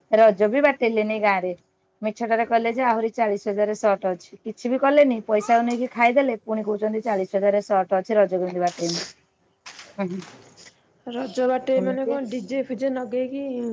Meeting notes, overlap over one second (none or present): none